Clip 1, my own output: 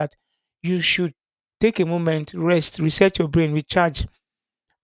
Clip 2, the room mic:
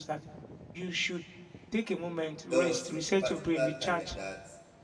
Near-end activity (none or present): present